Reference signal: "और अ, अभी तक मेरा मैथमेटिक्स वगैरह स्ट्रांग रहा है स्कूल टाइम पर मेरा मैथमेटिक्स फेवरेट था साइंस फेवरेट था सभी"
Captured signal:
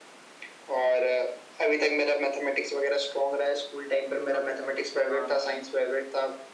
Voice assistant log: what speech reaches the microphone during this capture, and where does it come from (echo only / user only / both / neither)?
both